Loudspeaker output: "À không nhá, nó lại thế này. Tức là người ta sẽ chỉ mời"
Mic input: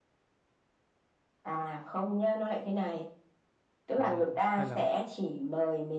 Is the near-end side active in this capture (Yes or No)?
Yes